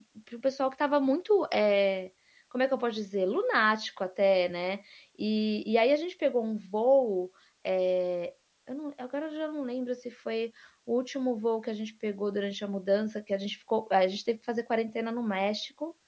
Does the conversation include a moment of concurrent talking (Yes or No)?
No